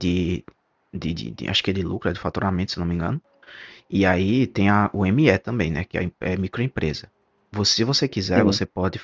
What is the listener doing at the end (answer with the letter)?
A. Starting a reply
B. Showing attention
B